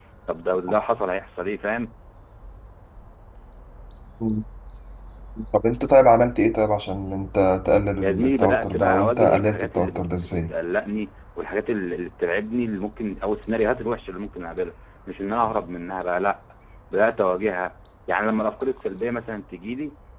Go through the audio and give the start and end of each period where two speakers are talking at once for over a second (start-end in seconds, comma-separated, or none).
8.0-10.5